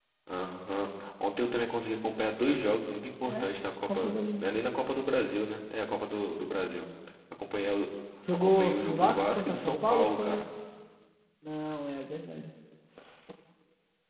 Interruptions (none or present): present